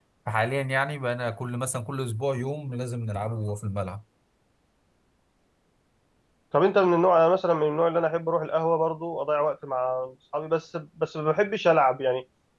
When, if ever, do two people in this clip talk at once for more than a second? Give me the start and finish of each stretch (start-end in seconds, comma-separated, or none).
none